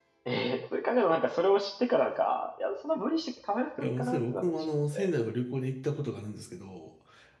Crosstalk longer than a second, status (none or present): present